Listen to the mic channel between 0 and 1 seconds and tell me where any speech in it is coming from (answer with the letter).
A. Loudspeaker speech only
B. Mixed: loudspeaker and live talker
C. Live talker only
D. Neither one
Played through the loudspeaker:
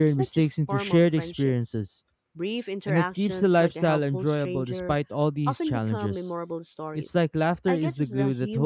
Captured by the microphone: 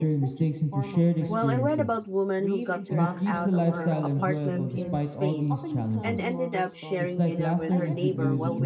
A